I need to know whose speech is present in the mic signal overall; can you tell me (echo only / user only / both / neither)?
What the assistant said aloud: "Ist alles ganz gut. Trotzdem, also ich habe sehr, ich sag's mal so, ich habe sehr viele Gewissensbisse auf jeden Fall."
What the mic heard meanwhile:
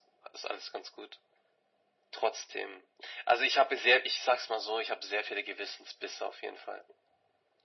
echo only